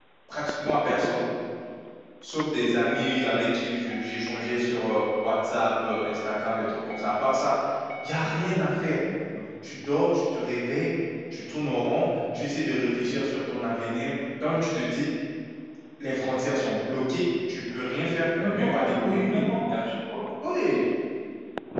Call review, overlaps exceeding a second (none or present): present